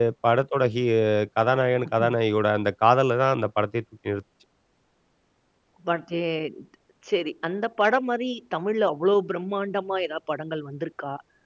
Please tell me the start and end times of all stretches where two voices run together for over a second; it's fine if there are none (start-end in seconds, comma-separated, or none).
none